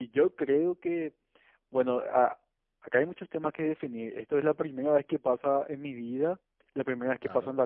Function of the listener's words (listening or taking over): listening